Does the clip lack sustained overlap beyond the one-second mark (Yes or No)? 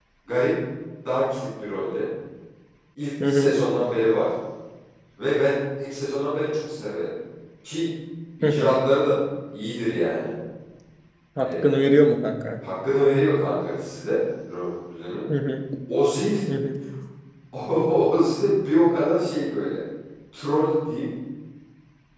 Yes